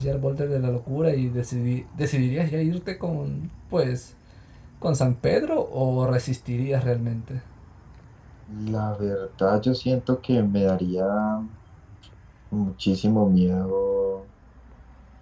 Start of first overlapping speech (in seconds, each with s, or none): none